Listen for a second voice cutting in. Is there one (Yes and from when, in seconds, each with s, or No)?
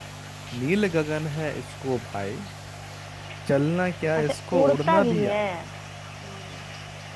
Yes, from 4.2 s